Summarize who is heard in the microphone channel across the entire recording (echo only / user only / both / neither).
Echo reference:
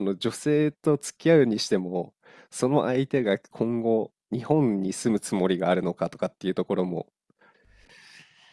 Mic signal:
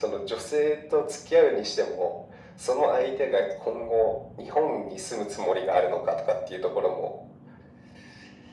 echo only